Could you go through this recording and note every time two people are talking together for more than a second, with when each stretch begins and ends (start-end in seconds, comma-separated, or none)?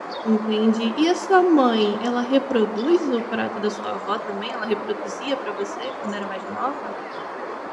none